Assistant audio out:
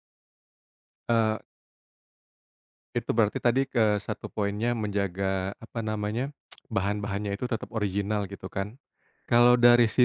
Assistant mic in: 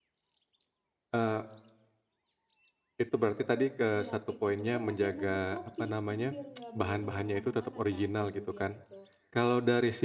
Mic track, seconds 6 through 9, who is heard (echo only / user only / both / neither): both